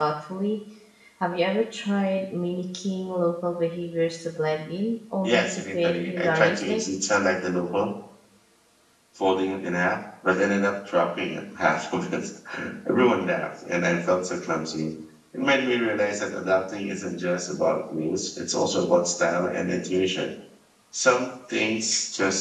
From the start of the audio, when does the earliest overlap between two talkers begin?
5.2 s

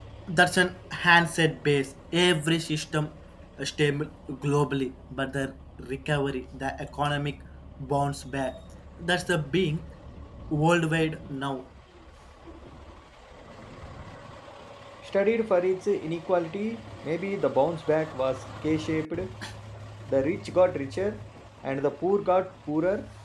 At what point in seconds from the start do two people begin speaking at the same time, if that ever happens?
none

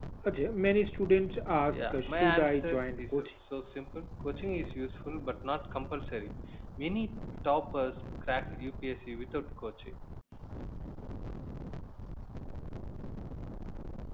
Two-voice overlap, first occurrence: 1.7 s

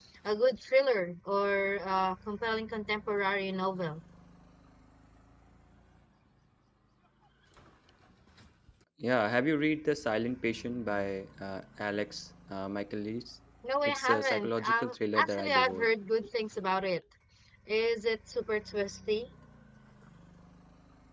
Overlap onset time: 13.8 s

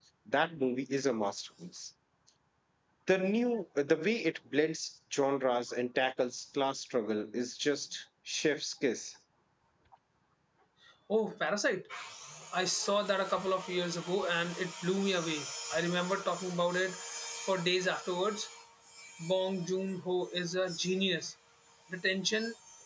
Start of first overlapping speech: none

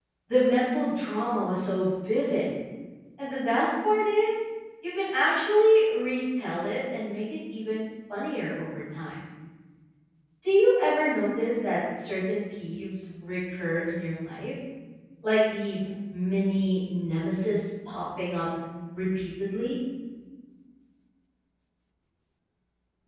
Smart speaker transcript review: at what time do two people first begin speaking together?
none

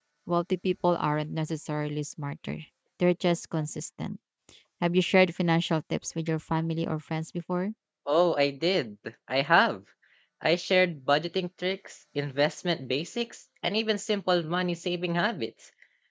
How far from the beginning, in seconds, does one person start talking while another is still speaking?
none

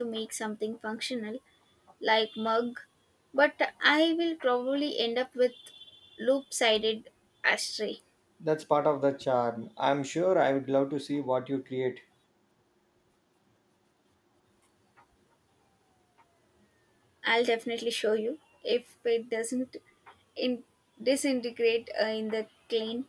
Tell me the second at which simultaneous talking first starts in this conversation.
none

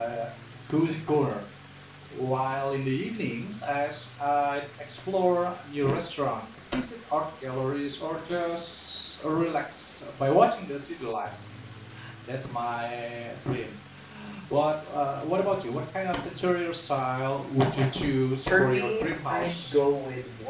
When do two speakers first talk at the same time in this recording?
18.5 s

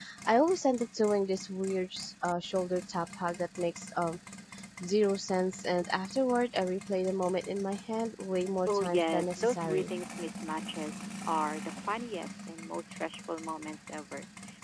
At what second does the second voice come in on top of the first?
8.7 s

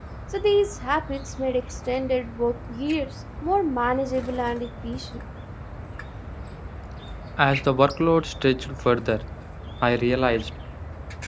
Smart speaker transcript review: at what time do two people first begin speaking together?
none

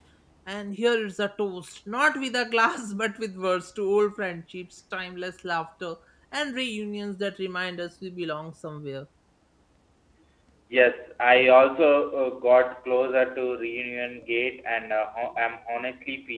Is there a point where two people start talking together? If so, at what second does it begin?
none

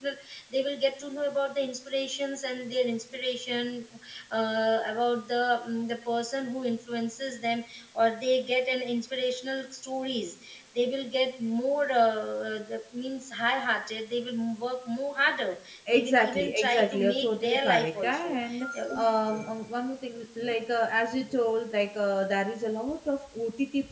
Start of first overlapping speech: 15.9 s

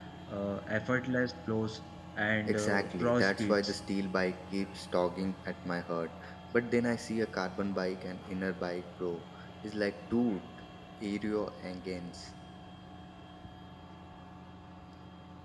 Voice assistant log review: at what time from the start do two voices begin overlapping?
2.5 s

